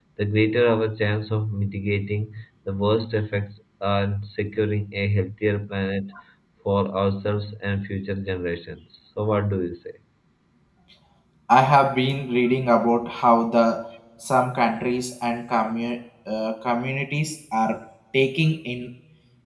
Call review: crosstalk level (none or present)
none